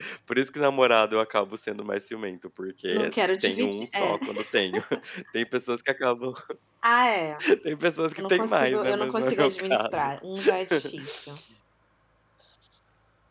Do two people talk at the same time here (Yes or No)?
Yes